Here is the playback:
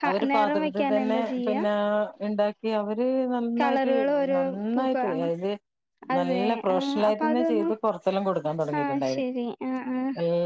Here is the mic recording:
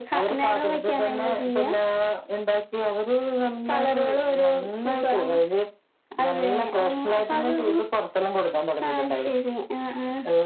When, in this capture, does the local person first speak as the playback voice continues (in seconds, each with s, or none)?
none